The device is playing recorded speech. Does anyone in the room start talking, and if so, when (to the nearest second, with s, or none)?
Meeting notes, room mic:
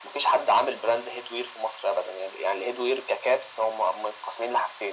none